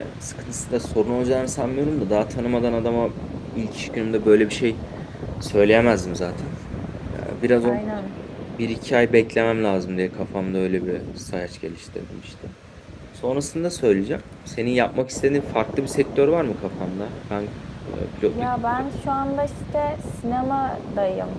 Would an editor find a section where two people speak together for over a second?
No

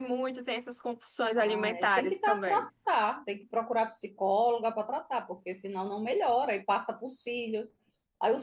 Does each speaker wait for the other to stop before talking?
No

